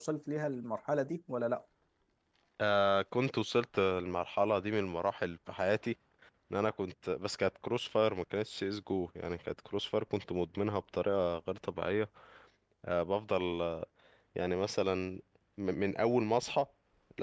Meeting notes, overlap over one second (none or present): none